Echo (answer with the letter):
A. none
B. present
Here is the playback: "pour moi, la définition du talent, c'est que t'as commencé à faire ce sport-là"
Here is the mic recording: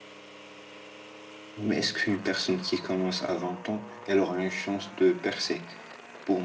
A